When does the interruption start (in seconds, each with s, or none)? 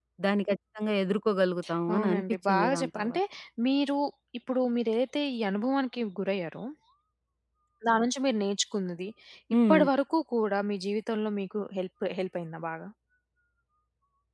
1.9 s